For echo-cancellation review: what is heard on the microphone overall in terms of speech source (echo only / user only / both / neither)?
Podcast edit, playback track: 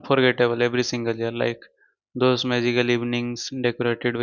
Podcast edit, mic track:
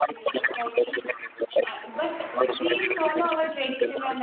both